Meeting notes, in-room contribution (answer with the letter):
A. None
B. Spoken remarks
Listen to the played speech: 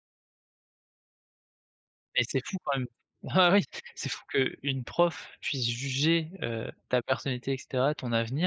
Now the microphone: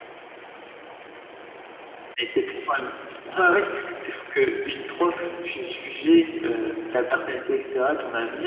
A